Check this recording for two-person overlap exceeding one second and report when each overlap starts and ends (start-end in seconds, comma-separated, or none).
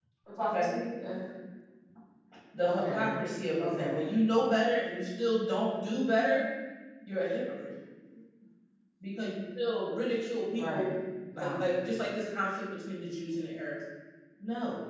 none